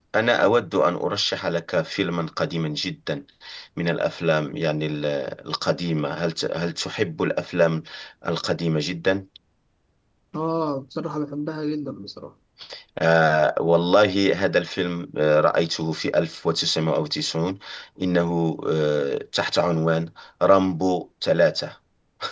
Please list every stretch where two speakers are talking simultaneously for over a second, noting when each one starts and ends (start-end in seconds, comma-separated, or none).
none